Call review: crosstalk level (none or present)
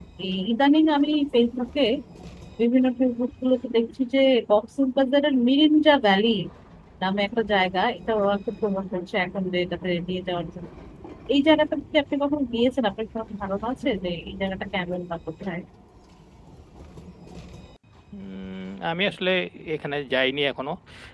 none